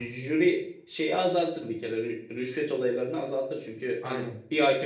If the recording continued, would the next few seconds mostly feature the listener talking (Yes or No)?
No